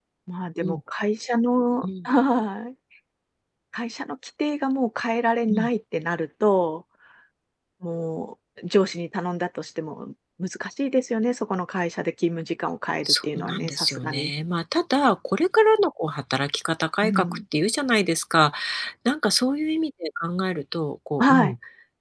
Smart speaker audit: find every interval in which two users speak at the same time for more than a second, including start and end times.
13.0-14.3

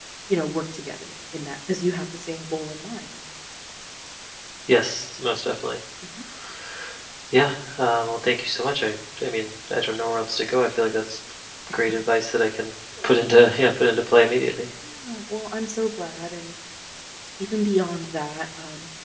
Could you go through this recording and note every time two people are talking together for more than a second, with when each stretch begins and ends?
none

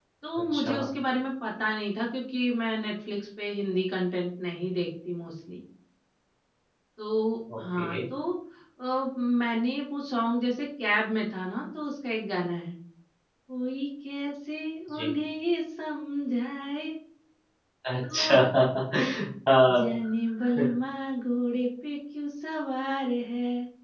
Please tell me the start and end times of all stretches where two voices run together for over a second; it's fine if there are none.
none

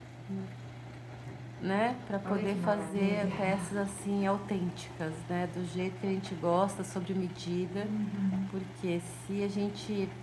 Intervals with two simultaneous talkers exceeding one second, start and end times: 2.3-3.6

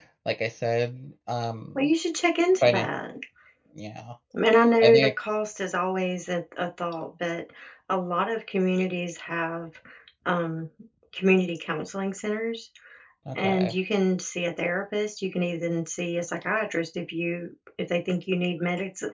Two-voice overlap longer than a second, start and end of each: none

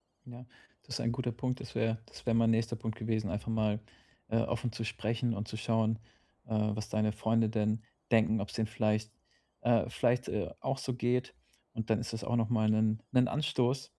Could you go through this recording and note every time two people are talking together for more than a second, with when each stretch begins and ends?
none

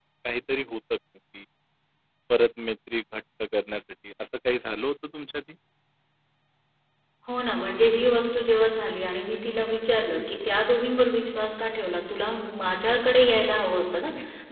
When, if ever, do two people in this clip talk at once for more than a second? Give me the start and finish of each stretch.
none

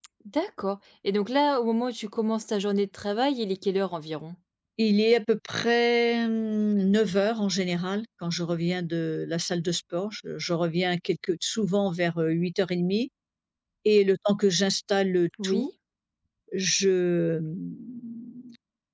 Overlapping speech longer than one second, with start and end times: none

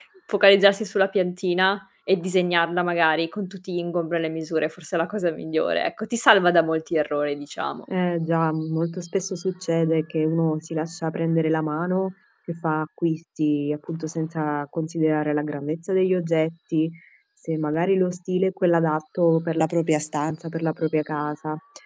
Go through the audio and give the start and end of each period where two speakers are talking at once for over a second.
none

